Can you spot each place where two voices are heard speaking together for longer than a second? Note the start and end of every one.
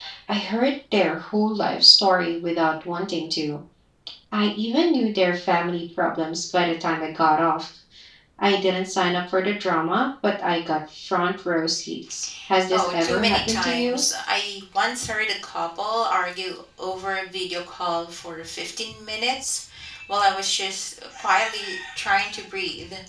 12.7-14.0

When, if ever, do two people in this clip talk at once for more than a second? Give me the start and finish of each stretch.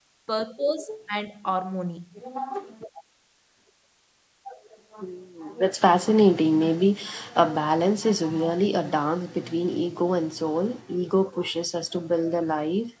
none

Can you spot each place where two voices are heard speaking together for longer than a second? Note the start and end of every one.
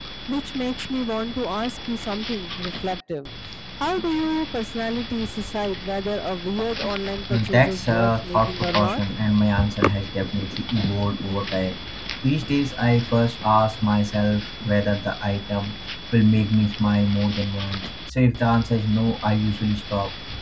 7.3-9.0

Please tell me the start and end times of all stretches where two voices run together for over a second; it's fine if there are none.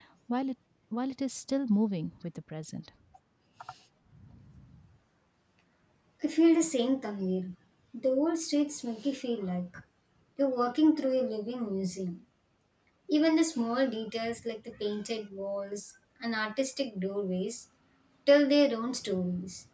none

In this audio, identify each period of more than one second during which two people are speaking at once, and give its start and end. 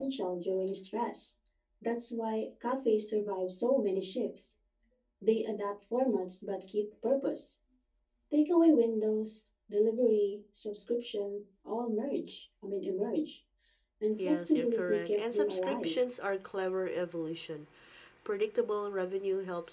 14.2-15.9

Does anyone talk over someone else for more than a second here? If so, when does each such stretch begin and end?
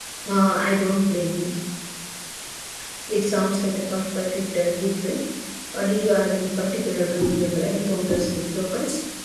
none

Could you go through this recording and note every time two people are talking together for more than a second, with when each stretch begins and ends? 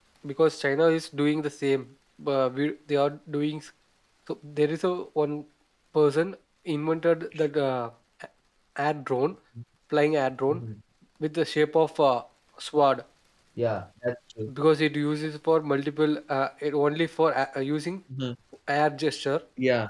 none

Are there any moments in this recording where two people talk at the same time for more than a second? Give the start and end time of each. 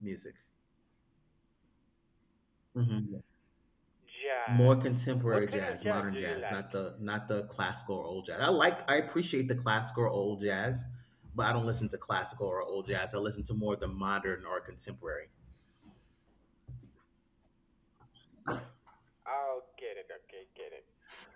4.5-6.6

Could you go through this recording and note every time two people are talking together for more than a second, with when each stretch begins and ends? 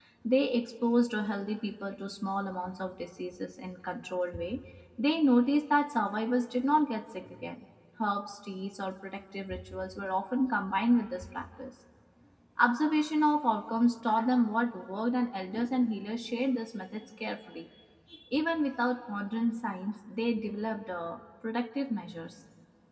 none

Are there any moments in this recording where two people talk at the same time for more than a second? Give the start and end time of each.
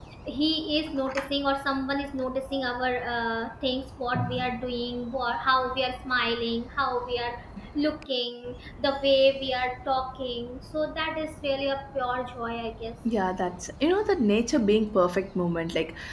none

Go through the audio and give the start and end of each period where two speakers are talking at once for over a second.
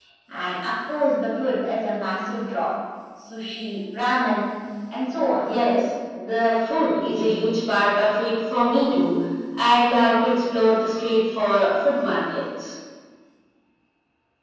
none

